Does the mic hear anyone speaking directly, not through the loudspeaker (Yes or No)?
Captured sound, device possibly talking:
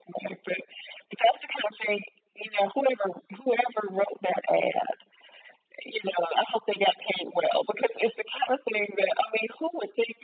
No